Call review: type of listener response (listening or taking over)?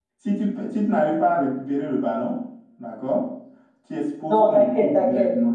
taking over